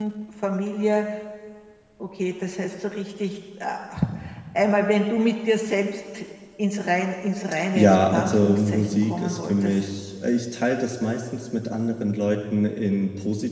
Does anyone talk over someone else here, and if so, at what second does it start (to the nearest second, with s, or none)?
8 s